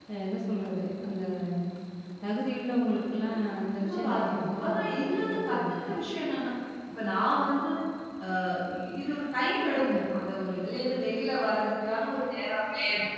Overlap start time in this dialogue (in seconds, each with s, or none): 3.8 s